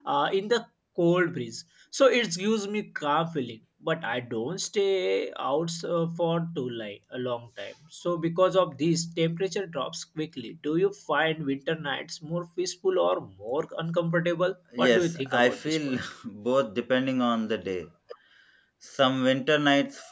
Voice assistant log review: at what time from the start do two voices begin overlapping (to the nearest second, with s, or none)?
15 s